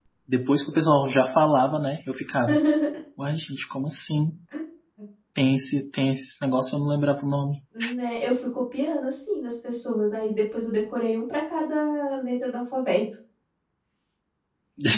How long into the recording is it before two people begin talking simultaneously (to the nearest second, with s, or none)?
none